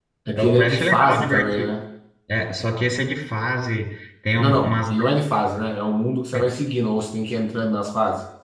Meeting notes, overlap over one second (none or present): present